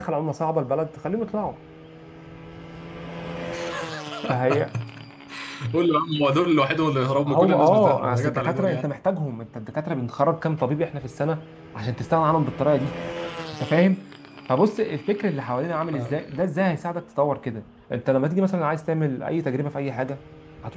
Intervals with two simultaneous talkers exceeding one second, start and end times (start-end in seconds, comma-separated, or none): 7.2-8.8